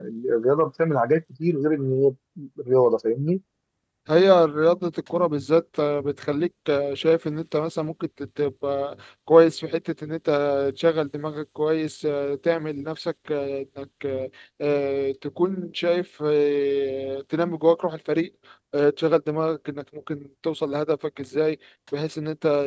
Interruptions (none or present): none